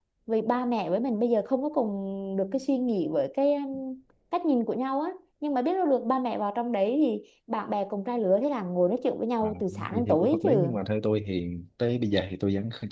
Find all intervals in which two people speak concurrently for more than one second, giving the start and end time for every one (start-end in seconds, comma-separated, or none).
9.4-10.7